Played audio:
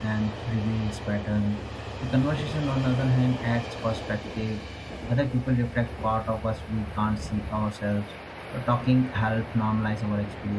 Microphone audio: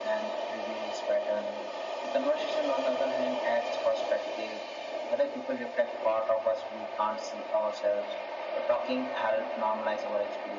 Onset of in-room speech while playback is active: none

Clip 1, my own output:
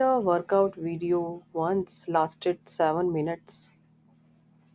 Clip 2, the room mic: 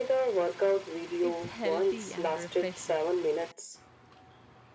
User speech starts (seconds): 1.2 s

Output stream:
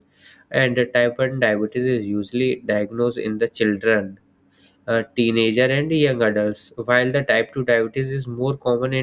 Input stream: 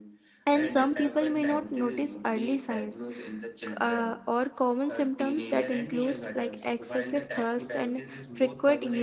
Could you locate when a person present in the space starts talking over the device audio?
0.5 s

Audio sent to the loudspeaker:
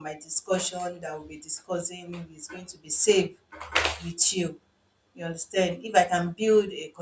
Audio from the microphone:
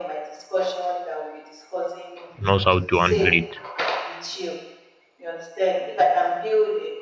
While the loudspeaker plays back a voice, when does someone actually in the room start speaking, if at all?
2.4 s

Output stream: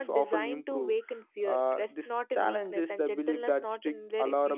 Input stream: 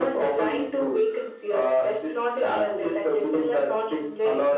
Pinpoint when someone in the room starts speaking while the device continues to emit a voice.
none

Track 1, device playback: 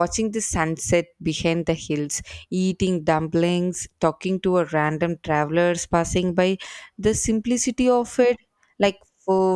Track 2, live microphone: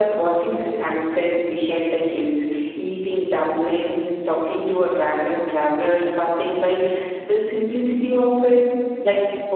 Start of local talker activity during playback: none

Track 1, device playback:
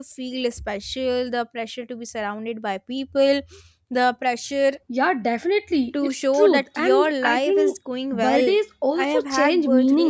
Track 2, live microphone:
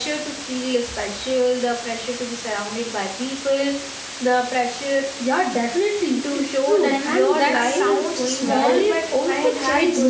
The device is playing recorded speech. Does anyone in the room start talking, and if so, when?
6.9 s

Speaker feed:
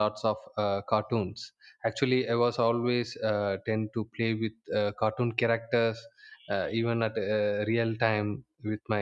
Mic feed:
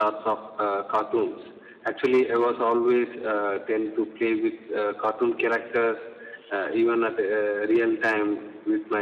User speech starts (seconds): none

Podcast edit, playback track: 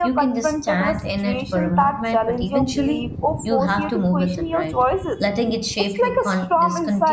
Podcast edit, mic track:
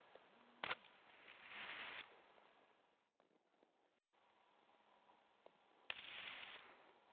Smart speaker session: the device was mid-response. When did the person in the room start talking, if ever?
none

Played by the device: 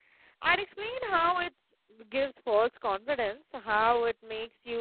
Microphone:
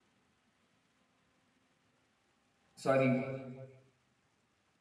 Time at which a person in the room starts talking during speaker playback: 2.7 s

